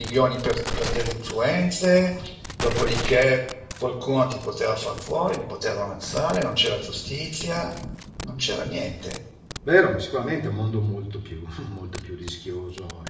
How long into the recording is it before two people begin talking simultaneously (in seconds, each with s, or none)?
none